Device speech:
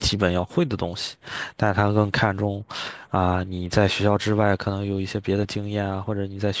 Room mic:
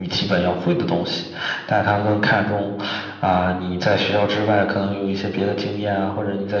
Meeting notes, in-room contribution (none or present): none